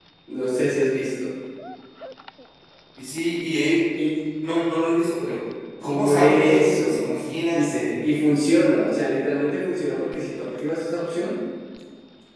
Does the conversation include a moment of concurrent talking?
Yes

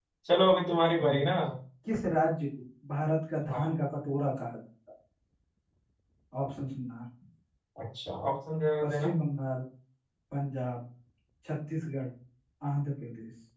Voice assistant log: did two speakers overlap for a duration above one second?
No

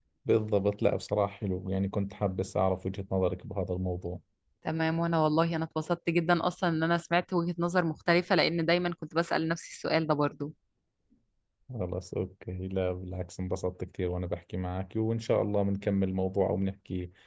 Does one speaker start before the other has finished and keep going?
No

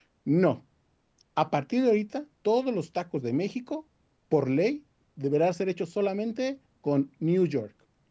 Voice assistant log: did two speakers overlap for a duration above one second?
No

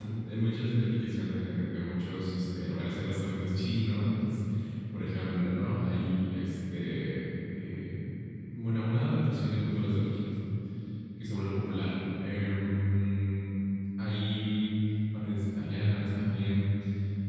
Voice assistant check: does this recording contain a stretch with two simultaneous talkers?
No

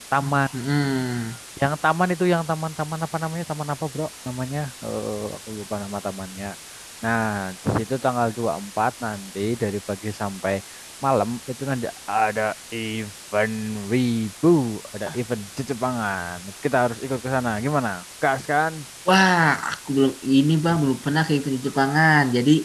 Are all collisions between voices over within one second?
Yes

